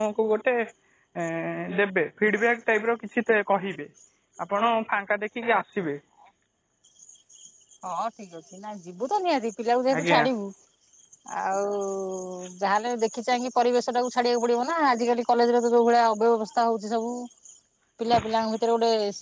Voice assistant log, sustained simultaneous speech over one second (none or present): none